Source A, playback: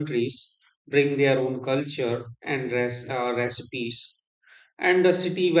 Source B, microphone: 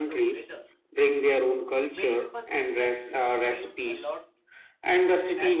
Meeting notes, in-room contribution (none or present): present